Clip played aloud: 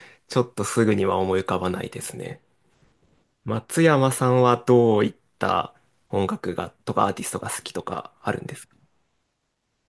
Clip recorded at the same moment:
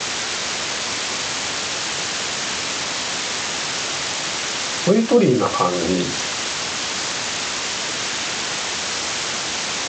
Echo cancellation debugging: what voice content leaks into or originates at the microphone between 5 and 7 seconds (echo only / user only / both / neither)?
user only